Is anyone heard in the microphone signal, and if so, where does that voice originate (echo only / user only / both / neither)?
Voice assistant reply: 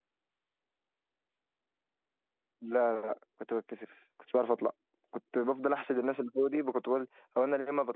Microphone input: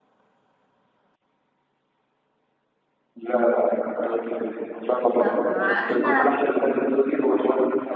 both